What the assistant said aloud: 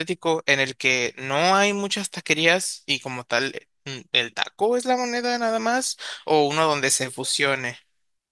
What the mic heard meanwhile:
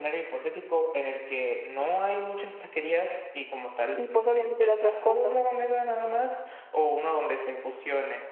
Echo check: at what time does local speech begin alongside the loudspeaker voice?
4.0 s

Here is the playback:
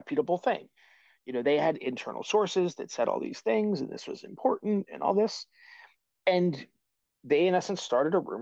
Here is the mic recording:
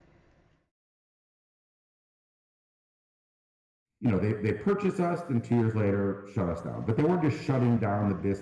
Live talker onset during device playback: 4.0 s

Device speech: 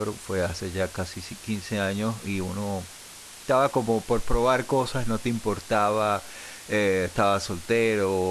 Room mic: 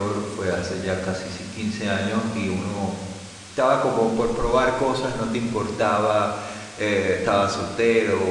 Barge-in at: none

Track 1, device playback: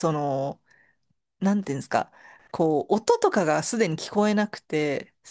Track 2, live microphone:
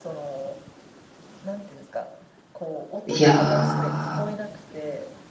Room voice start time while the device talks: 3.0 s

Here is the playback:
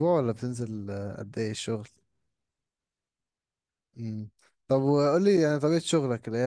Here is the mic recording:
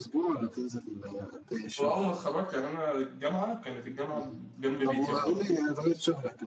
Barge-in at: 1.8 s

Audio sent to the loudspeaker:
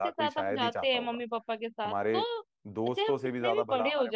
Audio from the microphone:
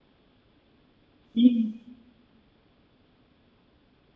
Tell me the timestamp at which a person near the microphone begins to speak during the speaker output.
1.4 s

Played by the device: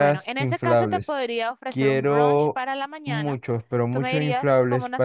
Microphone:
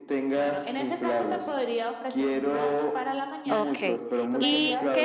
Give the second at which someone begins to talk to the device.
3.5 s

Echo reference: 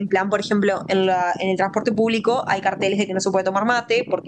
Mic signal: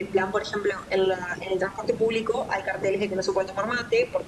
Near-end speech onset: none

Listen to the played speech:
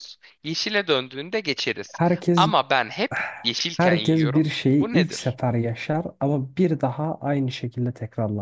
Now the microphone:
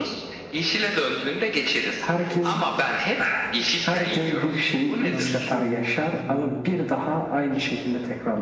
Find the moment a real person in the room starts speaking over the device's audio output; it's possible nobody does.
5.1 s

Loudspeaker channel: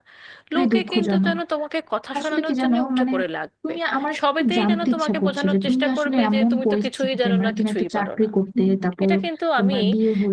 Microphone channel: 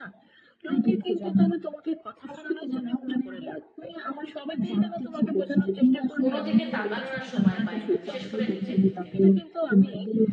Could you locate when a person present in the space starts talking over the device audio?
6.2 s

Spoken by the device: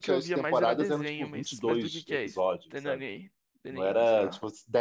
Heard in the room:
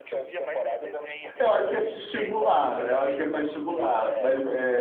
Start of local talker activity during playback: 1.4 s

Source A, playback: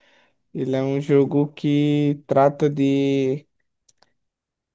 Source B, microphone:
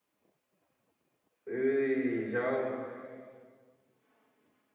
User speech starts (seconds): 1.5 s

